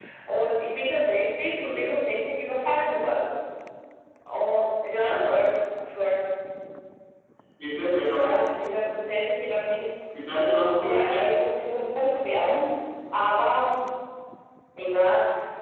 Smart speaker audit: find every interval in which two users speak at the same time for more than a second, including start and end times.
none

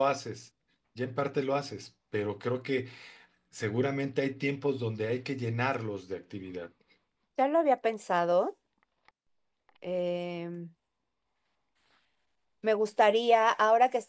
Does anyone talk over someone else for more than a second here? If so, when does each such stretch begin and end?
none

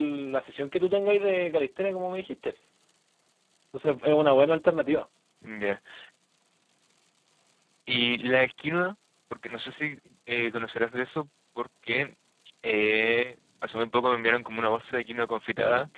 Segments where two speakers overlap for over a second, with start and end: none

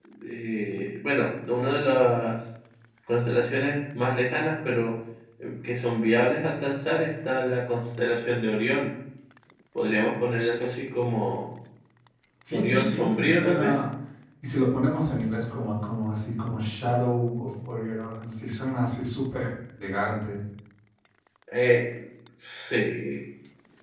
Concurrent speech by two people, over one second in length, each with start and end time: 12.5-13.7

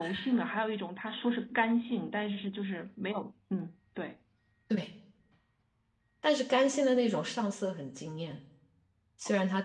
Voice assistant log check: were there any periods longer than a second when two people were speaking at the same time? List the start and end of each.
none

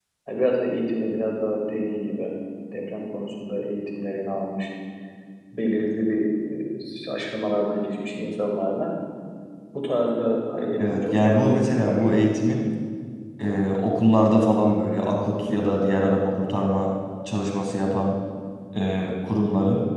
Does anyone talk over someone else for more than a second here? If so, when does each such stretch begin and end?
10.9-12.2

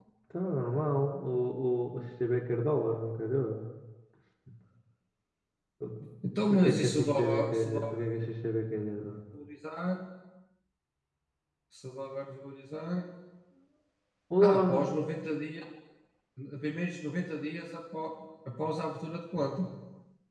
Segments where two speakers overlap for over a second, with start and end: 6.5-8.0

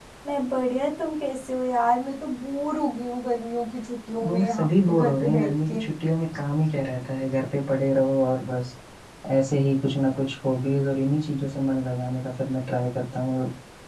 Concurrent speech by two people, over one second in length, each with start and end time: 4.2-5.8

